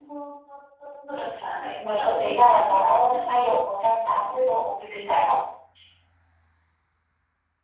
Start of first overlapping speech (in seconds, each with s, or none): 1.8 s